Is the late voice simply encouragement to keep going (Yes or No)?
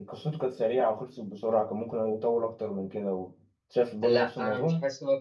No